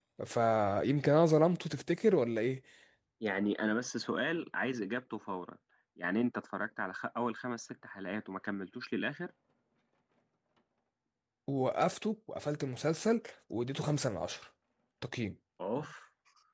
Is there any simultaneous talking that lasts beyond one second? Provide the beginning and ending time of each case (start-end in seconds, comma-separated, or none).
none